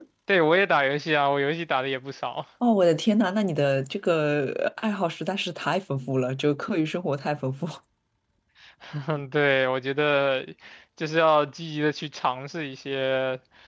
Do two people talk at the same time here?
No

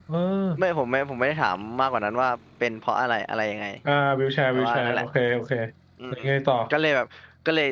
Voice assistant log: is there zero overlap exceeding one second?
Yes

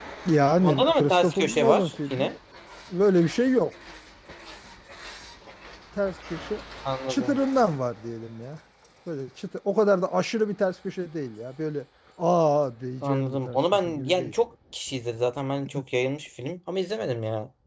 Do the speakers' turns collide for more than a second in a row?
Yes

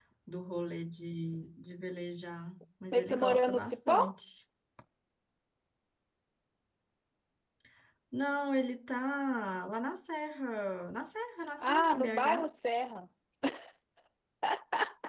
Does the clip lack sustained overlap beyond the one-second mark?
No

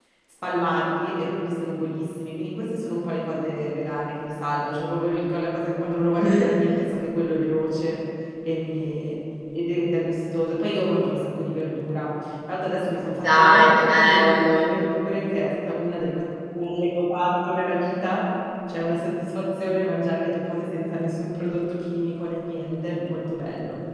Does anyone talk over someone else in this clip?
Yes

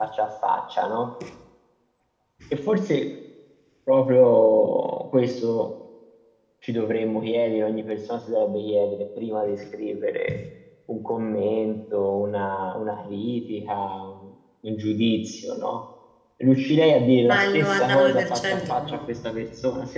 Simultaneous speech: Yes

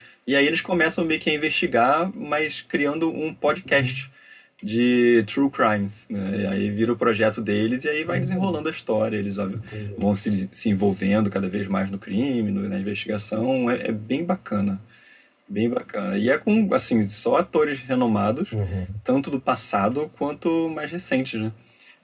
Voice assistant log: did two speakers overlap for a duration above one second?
No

